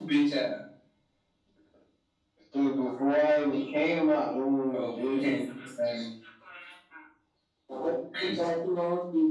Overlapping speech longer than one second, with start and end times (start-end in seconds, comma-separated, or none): none